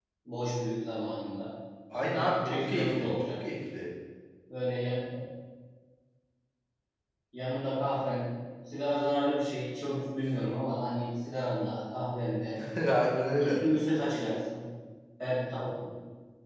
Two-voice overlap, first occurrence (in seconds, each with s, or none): 1.9 s